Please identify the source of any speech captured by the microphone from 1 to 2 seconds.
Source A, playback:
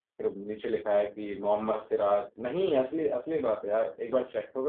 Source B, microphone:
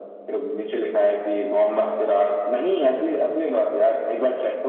echo only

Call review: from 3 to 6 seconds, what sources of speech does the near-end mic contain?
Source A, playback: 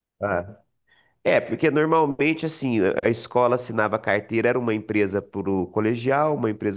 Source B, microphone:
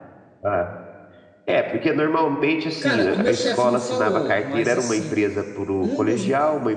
both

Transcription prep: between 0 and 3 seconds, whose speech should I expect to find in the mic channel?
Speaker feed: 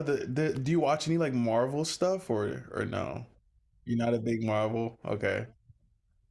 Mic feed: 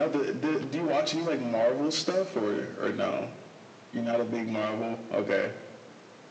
echo only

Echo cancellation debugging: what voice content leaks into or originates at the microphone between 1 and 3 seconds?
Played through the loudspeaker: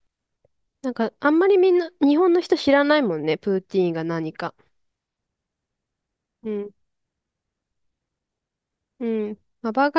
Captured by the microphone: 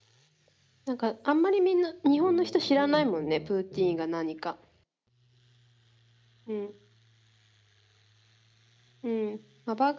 both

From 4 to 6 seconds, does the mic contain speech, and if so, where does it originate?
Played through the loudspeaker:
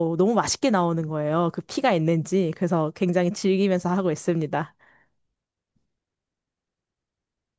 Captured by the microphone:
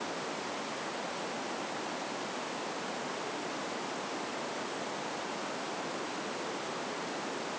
neither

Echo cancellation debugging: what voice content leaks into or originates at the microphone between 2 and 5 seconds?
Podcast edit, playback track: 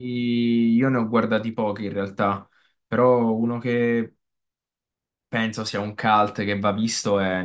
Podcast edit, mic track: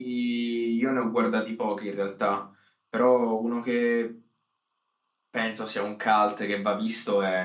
echo only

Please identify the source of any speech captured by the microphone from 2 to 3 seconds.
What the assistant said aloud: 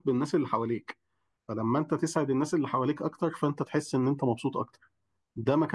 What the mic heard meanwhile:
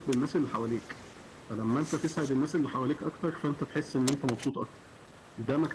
echo only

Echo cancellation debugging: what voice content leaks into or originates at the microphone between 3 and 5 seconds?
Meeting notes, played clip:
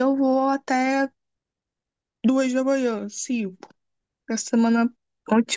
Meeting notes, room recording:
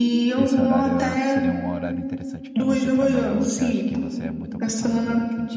both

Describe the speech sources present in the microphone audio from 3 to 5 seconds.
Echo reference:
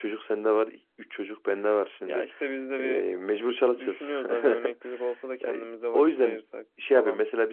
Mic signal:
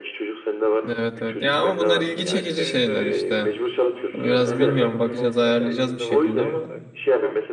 both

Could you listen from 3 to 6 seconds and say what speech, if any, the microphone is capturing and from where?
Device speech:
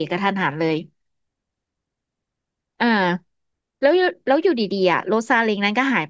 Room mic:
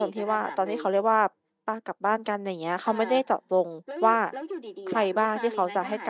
both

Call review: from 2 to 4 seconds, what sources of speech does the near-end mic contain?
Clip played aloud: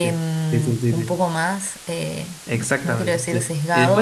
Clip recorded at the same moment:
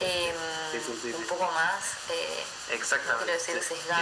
echo only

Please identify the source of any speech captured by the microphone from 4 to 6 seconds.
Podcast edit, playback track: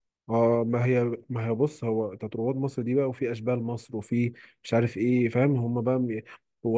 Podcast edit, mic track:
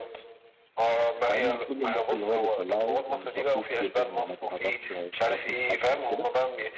both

